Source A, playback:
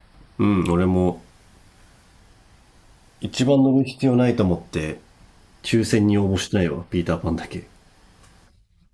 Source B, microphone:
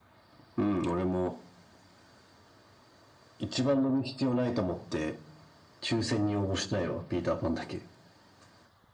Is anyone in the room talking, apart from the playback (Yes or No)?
No